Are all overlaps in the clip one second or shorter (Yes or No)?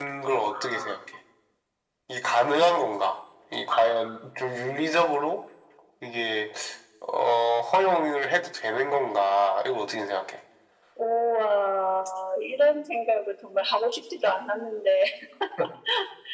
Yes